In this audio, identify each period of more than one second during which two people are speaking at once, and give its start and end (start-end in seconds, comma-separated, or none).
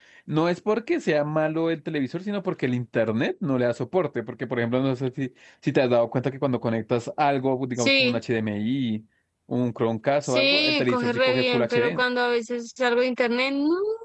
10.2-12.0